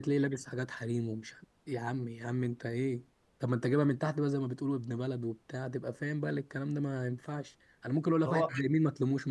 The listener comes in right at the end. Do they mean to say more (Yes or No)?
No